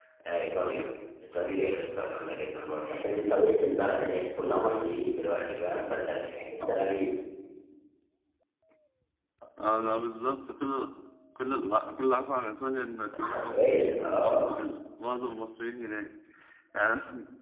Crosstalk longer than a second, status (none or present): present